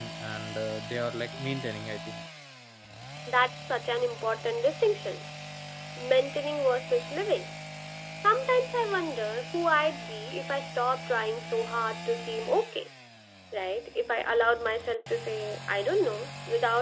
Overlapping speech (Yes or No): No